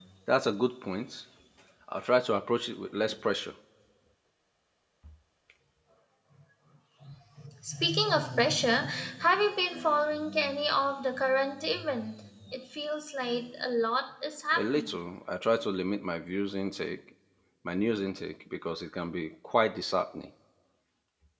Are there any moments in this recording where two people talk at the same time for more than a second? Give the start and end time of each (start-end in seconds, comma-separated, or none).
none